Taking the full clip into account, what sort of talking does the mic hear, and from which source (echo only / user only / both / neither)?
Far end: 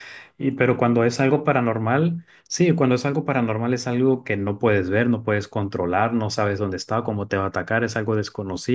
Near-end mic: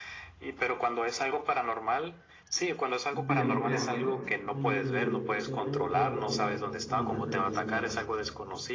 both